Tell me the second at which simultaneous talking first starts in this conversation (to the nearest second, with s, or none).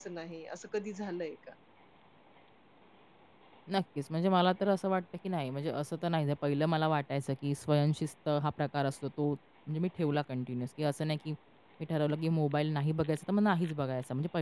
none